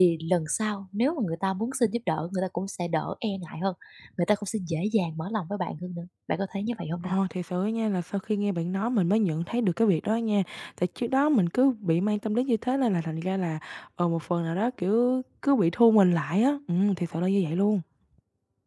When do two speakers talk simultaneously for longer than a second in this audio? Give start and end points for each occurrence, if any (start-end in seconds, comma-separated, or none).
none